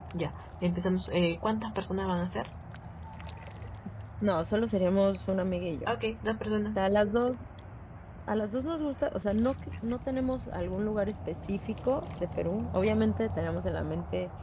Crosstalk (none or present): none